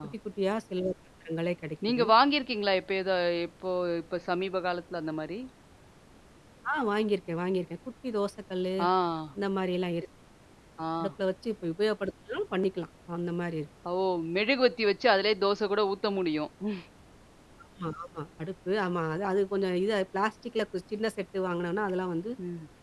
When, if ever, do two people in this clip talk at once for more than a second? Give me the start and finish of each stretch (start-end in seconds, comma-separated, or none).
none